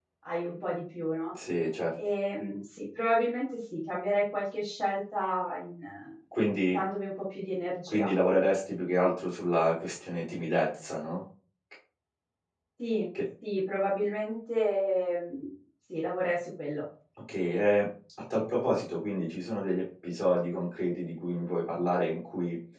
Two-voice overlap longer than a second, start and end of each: none

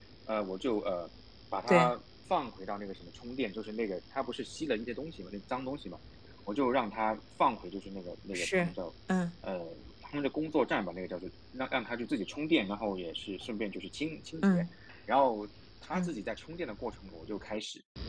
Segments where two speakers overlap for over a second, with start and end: none

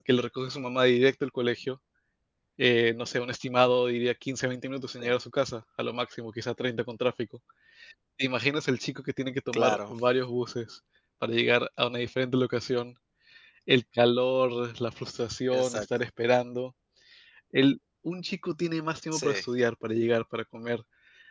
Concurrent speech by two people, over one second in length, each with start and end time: none

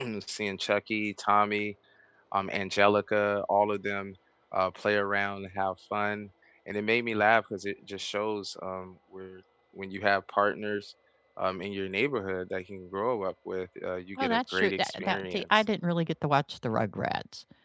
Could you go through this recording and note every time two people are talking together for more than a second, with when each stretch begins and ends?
14.2-15.4

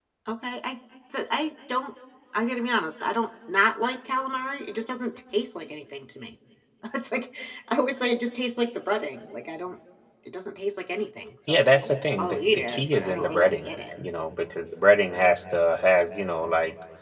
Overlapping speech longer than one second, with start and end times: 11.5-13.7

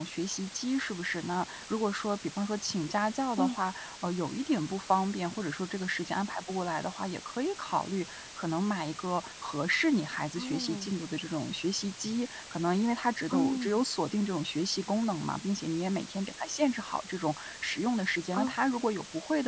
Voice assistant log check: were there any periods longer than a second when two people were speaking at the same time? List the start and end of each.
none

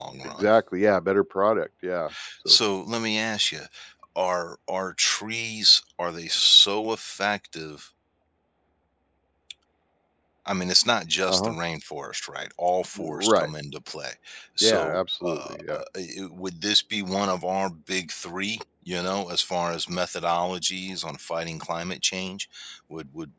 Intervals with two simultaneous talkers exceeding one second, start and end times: 14.6-15.8

